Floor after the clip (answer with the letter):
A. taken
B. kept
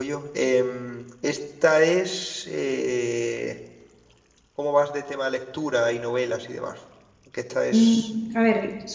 A